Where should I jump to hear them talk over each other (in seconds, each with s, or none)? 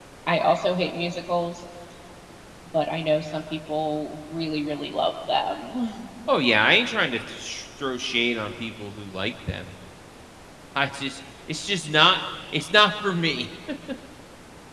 none